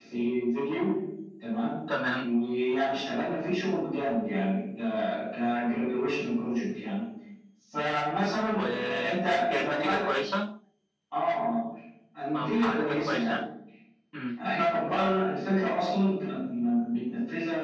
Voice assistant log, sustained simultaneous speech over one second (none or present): present